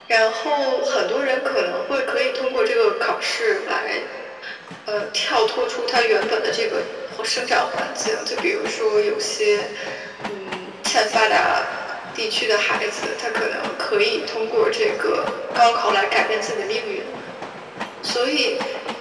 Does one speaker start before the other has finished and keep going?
No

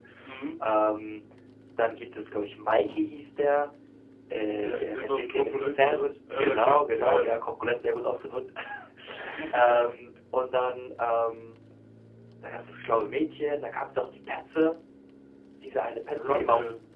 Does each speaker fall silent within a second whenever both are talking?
No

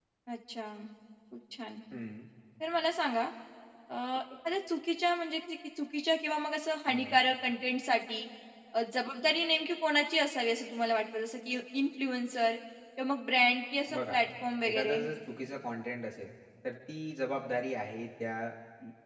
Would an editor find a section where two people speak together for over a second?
No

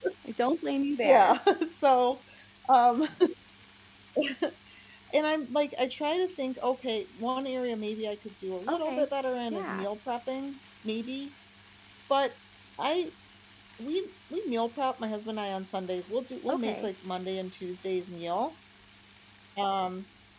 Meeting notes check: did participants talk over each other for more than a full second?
No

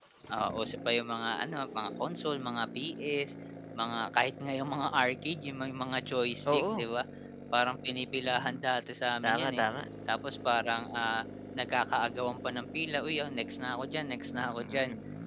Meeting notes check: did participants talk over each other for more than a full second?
No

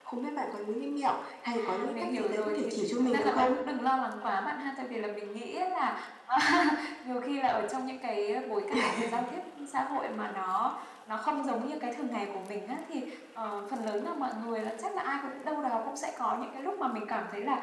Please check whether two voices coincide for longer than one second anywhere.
Yes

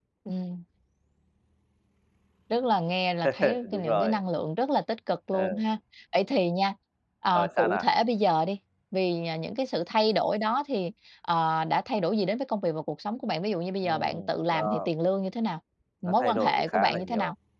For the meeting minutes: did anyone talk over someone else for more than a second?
Yes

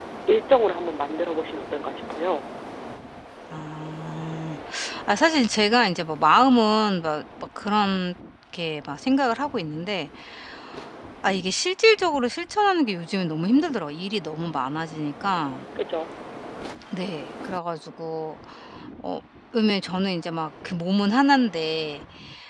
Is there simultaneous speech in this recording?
No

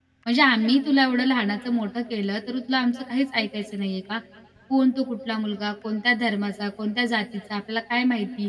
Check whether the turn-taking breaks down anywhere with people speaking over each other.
No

